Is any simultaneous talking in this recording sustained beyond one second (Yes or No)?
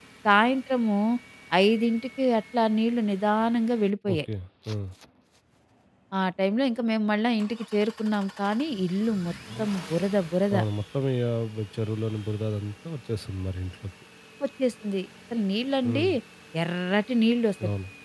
No